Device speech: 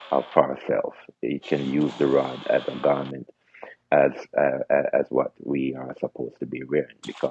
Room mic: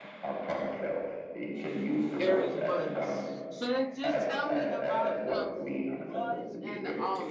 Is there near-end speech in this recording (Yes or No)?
Yes